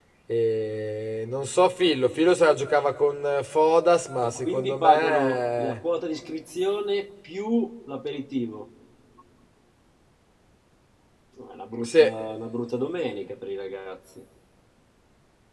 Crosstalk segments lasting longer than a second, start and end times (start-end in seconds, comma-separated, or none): 4.2-5.8